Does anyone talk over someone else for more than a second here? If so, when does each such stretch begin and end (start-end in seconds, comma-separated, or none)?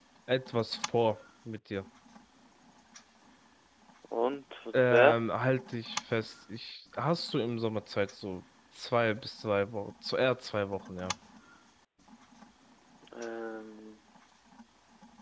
none